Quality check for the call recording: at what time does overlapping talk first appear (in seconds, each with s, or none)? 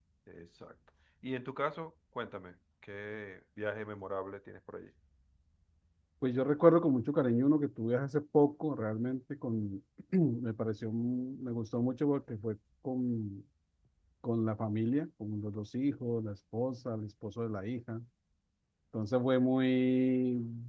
none